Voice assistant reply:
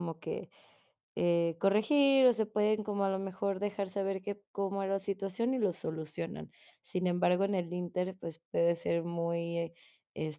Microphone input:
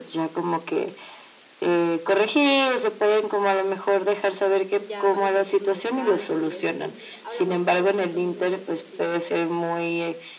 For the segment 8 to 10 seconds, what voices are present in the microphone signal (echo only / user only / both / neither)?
both